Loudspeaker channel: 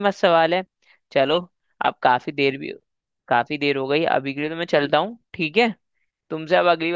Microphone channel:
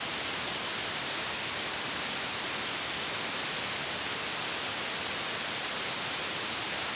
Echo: none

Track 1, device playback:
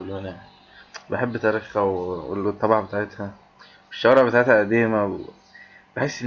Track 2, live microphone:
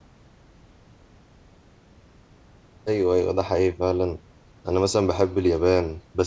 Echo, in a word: none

